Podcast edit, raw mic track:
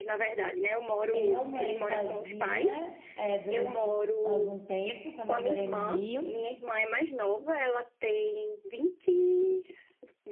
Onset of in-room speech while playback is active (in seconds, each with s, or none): 1.1 s